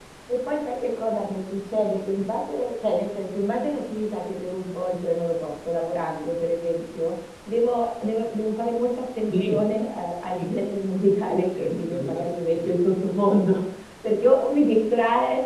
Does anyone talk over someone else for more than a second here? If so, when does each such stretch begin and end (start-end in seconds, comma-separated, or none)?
11.3-12.8